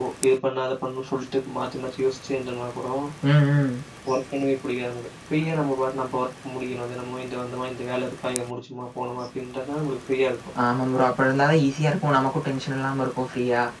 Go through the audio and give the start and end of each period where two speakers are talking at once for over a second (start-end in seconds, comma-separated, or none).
none